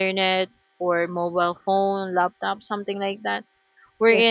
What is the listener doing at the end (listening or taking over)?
listening